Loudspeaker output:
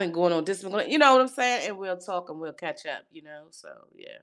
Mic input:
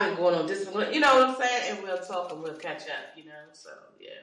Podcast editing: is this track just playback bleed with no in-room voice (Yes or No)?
Yes